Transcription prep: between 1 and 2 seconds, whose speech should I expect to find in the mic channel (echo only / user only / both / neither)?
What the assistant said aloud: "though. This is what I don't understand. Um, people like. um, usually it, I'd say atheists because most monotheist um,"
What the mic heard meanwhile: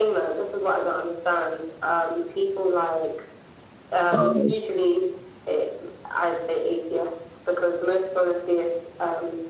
echo only